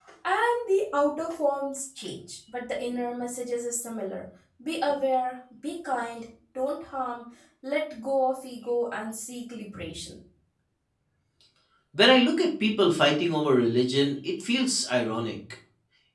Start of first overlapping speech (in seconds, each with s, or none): none